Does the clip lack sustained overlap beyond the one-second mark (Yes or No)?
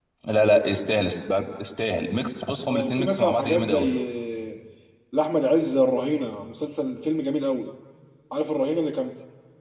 No